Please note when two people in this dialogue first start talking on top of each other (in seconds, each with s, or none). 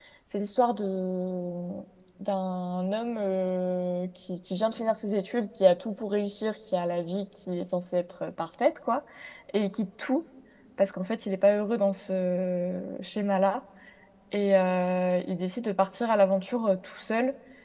none